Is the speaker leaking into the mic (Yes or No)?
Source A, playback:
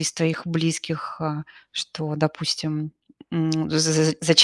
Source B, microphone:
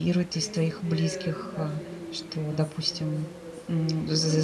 Yes